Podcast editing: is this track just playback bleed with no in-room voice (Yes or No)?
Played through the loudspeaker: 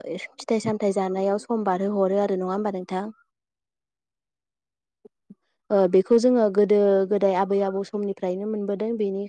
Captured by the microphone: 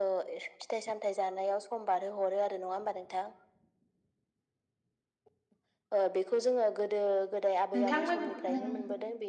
No